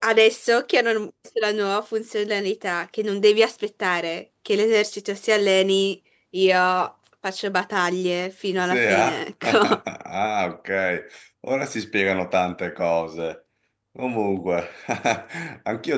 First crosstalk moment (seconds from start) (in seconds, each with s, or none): 8.6 s